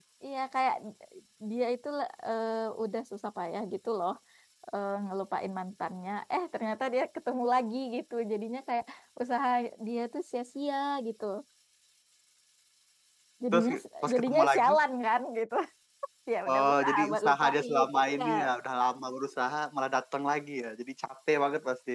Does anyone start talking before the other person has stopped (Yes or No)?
Yes